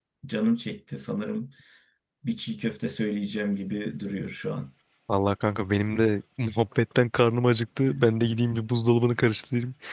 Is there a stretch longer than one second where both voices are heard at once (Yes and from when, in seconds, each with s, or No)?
No